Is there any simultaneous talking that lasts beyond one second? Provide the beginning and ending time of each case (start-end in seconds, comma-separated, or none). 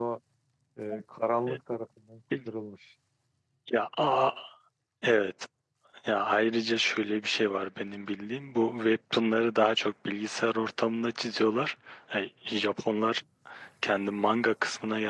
none